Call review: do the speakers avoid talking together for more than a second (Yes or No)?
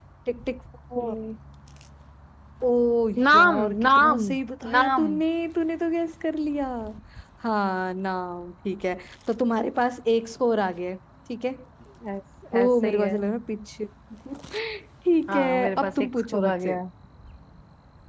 No